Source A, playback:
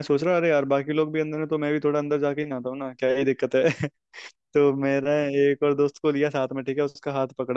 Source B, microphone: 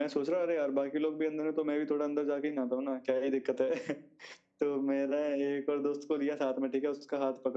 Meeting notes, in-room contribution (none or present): none